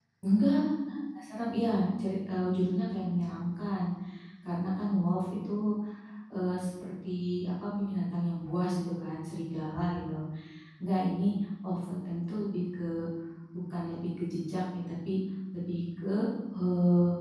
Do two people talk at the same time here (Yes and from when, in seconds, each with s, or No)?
No